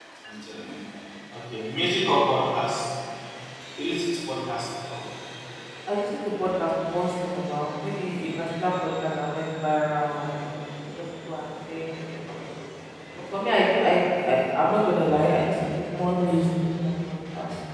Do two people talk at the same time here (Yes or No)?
No